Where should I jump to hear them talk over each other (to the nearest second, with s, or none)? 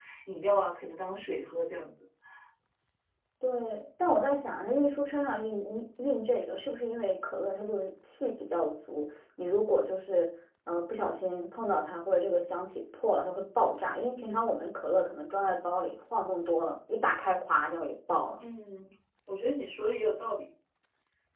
none